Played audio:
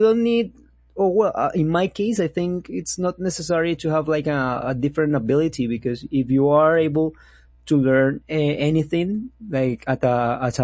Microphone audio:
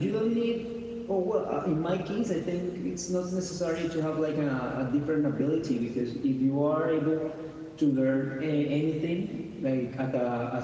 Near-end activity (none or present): none